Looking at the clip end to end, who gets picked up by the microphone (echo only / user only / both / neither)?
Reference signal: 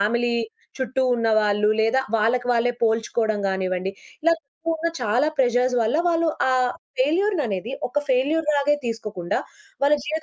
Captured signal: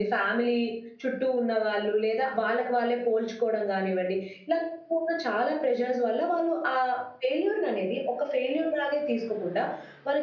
echo only